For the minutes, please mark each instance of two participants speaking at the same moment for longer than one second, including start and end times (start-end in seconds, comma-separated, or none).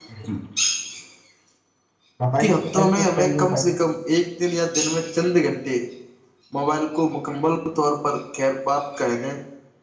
2.4-3.7